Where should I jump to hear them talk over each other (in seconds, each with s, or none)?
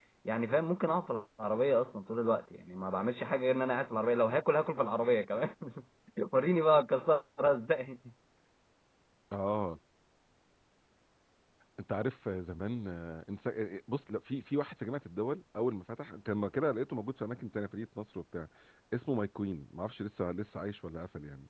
none